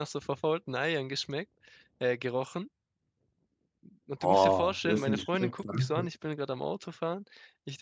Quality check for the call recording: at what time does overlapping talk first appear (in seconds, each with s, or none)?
4.2 s